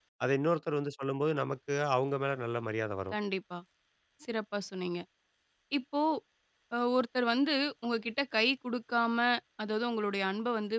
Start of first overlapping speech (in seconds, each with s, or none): none